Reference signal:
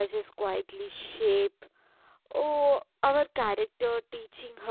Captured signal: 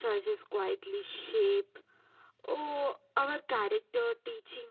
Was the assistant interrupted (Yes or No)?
No